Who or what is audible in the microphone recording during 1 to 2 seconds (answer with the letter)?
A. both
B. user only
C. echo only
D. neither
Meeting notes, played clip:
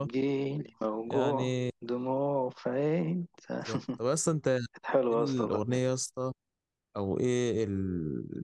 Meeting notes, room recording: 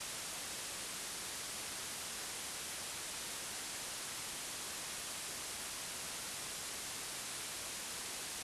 D